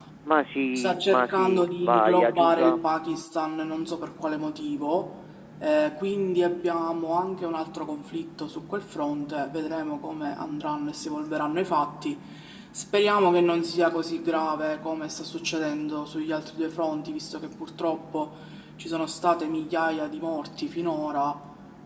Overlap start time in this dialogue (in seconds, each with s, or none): 0.8 s